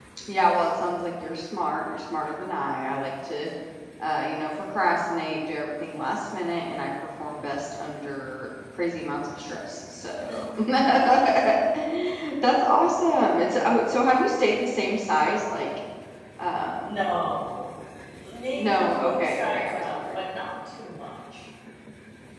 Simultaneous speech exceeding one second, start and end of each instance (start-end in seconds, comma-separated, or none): 18.6-20.2